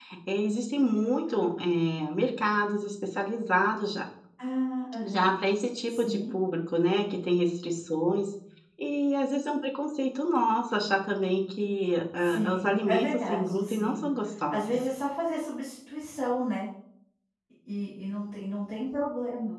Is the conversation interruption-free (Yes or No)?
No